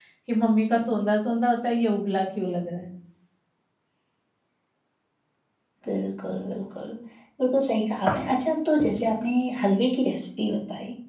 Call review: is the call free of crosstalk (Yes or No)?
Yes